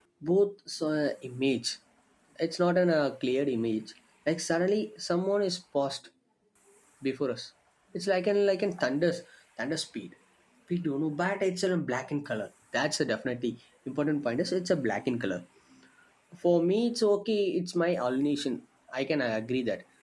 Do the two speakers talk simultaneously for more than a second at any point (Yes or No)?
No